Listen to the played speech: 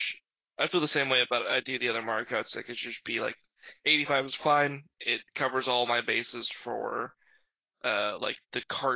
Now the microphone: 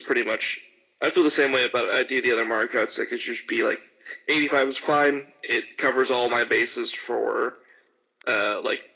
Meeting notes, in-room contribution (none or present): none